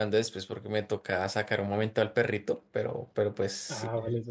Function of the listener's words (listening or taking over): taking over